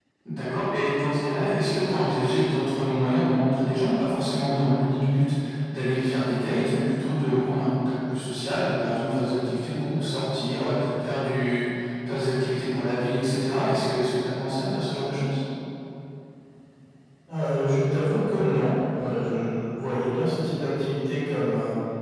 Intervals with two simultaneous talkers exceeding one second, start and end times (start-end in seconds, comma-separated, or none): none